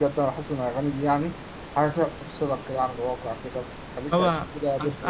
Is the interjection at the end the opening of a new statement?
Yes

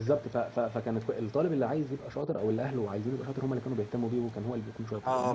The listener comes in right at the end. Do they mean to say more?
Yes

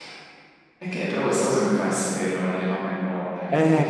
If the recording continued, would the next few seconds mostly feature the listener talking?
Yes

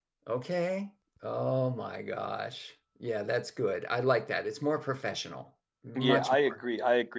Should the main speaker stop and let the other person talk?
Yes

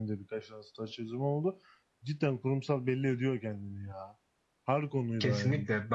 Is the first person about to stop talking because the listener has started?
Yes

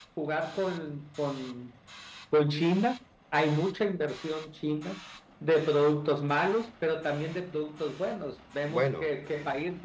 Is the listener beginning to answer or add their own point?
No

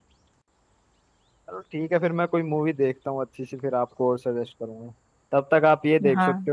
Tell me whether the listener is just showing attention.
Yes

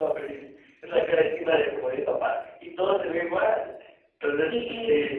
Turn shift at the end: No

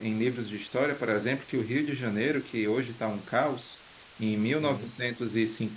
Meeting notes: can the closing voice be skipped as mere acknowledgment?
Yes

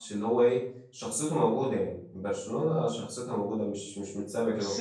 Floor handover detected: Yes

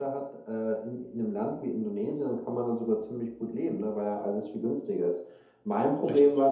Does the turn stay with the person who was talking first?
Yes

